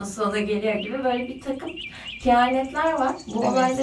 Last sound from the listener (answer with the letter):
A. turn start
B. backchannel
B